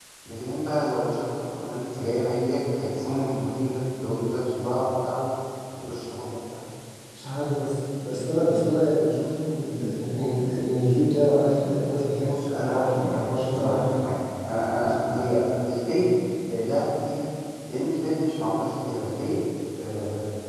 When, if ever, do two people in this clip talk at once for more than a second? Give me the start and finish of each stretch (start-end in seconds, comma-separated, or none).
12.5-14.0